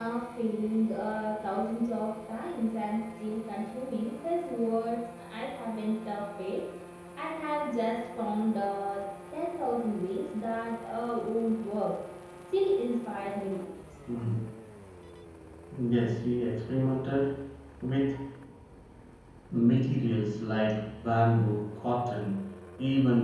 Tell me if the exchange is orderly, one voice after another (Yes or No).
Yes